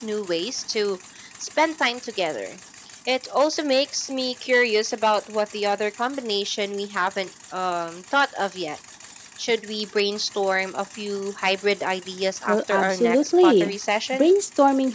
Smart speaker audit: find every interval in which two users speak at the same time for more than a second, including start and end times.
12.5-13.8

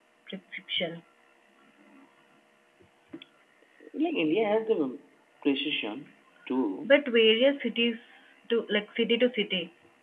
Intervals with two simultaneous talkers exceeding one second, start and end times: none

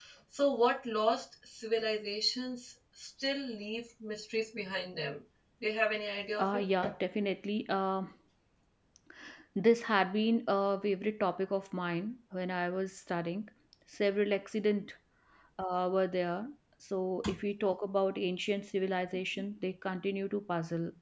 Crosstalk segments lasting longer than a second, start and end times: none

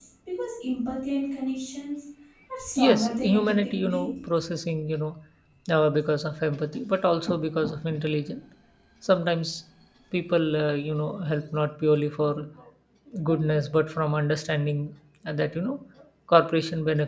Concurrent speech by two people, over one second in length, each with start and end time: 2.8-4.1

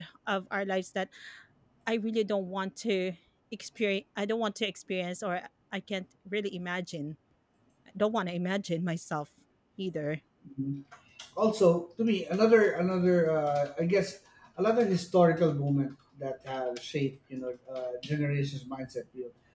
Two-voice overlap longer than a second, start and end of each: none

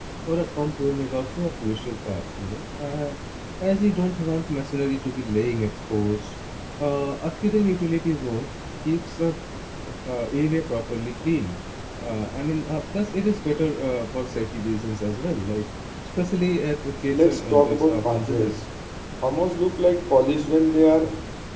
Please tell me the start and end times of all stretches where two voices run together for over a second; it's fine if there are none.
17.1-18.6

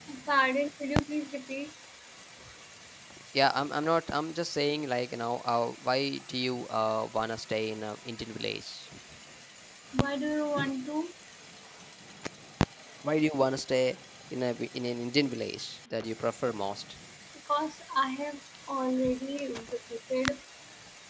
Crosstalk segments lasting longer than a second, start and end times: none

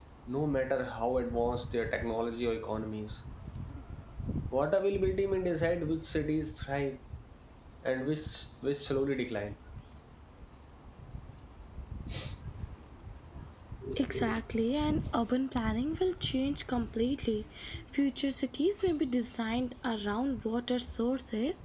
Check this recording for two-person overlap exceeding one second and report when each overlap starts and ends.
none

